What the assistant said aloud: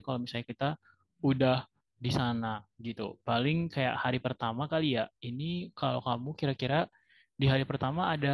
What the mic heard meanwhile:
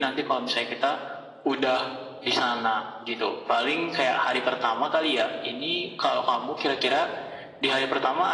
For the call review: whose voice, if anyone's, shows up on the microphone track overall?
echo only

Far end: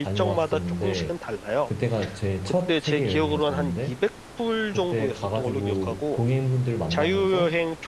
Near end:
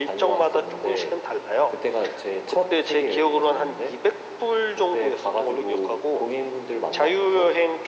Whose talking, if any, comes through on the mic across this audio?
echo only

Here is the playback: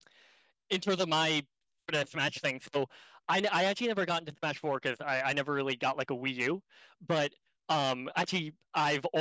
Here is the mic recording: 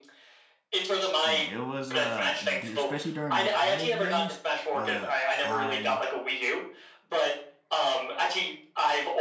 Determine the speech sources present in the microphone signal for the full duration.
both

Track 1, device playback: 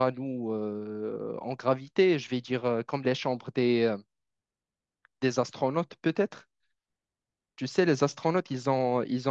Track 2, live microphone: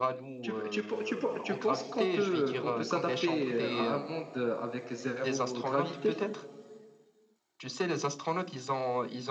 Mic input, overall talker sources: both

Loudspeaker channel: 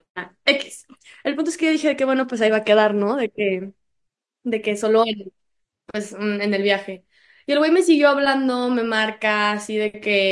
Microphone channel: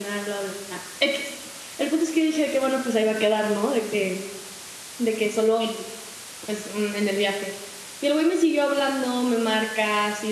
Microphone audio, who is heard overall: echo only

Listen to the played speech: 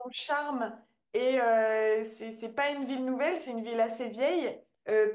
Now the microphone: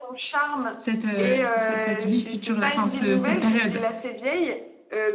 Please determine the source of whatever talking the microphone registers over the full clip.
both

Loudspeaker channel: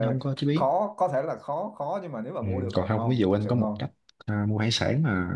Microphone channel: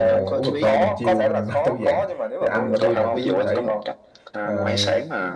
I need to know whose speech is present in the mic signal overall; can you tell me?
both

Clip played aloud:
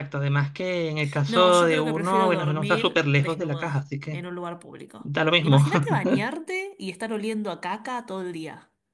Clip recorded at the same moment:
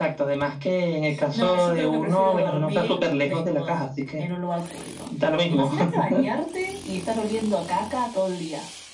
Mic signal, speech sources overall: echo only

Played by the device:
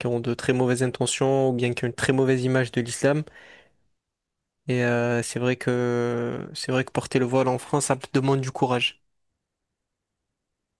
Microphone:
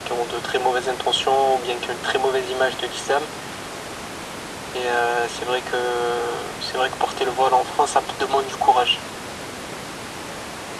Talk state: echo only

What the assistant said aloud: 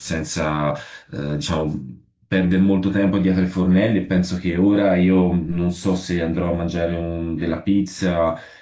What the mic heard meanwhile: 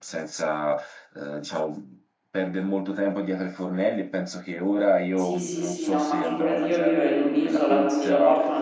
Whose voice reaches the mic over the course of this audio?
both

